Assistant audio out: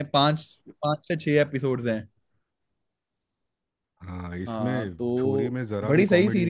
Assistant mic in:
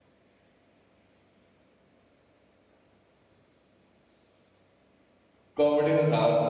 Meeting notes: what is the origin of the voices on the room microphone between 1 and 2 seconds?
neither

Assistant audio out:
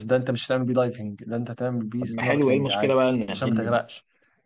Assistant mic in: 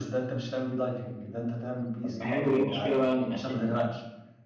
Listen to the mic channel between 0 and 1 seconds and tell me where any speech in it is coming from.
echo only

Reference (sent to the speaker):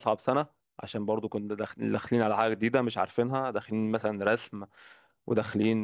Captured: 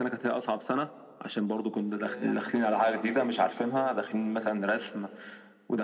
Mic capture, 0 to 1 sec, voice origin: echo only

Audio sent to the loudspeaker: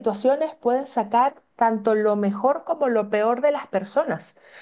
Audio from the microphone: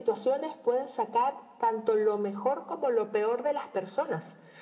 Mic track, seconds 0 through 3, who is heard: echo only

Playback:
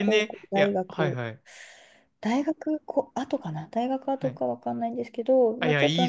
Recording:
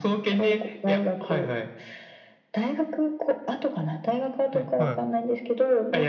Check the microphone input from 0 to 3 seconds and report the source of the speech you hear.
echo only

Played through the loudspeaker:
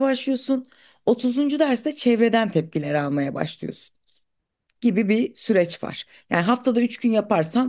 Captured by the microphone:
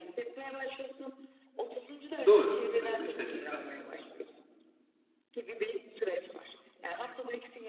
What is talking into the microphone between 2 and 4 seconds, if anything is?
both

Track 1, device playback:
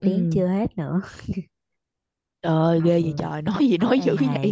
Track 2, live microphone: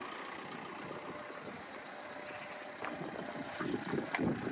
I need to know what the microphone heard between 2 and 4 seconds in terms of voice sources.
neither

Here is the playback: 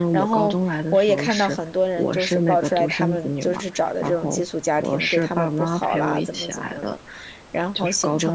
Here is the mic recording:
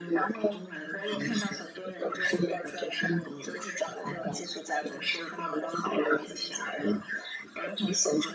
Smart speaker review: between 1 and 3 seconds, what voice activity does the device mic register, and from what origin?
echo only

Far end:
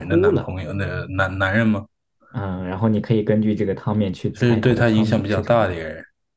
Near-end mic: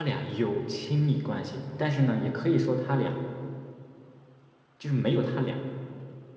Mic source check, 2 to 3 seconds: user only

